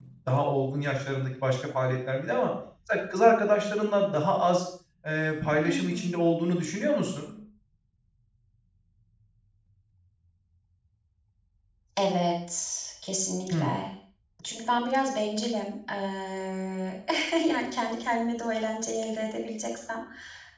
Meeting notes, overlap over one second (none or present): none